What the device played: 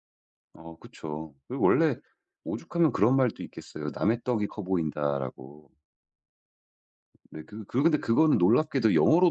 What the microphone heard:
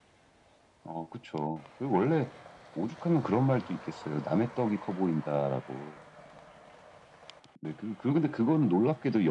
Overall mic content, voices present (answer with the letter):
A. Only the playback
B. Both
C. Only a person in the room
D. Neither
A